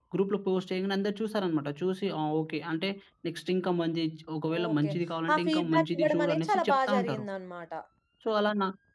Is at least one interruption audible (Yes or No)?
Yes